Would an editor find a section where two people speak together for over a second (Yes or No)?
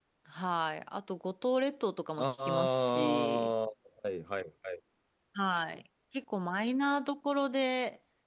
Yes